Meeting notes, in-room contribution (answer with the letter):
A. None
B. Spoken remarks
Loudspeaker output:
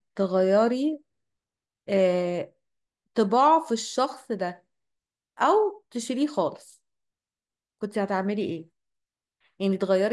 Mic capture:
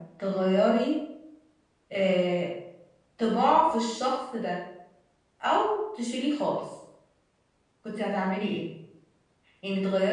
A